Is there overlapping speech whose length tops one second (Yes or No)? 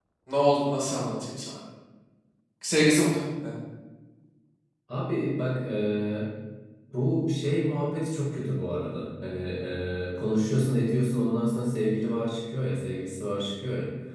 No